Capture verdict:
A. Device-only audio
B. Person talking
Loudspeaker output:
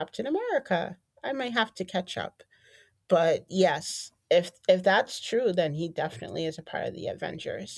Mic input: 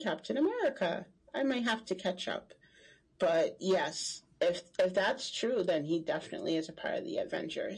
A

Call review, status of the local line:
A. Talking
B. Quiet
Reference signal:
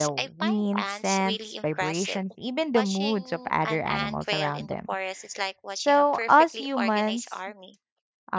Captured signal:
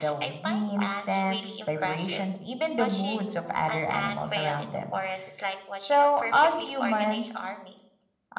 B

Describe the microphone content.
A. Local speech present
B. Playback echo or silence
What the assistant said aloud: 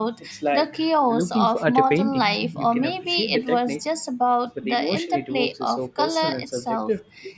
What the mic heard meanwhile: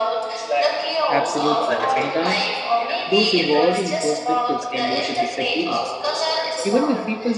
A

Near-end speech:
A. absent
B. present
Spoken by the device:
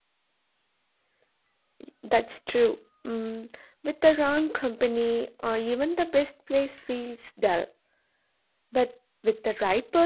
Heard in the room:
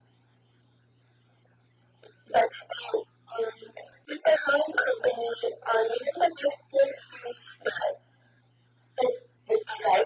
A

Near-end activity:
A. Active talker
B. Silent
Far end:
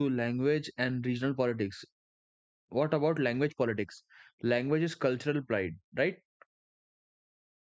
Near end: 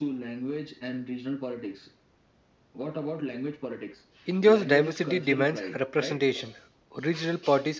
A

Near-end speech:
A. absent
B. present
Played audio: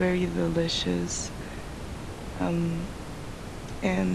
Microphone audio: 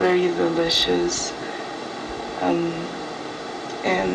A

